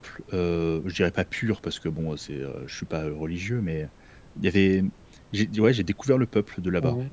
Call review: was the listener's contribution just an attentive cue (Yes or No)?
No